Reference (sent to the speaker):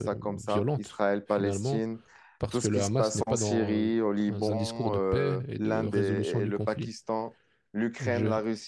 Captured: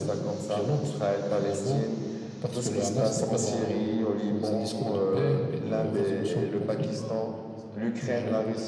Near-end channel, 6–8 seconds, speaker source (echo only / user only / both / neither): both